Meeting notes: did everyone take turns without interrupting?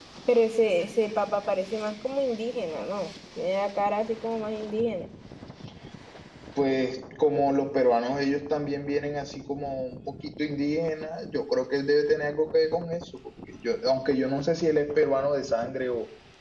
Yes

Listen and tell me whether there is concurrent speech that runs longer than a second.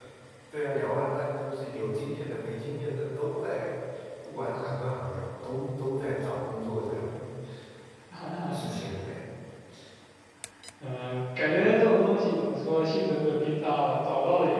No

